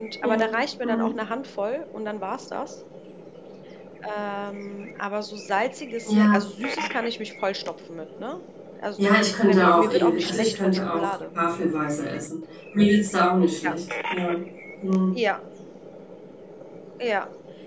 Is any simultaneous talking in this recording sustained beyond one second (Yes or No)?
Yes